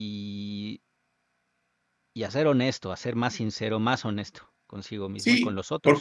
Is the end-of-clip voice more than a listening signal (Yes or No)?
Yes